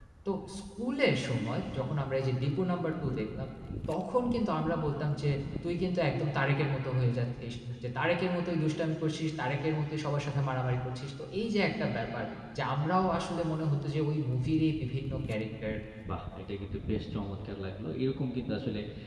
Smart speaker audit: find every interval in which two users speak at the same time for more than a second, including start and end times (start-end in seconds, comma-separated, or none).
none